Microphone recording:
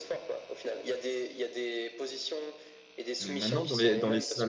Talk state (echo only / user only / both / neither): both